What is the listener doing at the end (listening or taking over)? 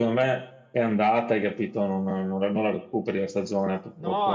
taking over